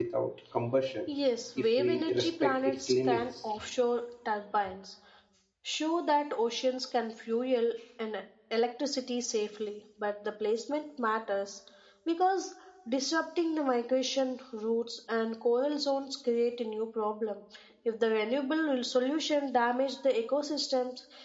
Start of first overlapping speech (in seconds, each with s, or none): 1.6 s